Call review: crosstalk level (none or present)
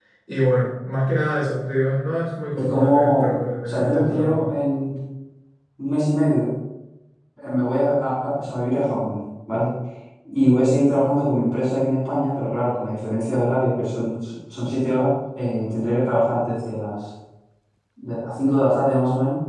present